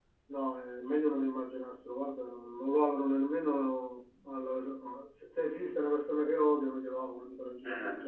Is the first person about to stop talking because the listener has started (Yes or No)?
Yes